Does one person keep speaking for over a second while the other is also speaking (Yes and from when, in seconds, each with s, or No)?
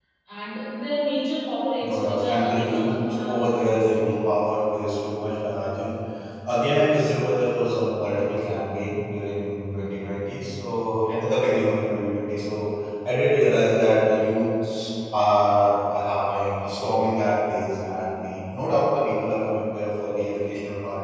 Yes, from 1.8 s